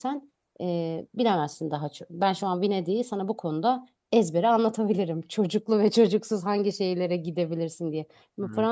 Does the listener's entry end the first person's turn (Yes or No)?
No